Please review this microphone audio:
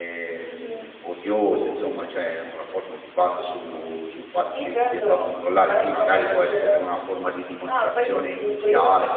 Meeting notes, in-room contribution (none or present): present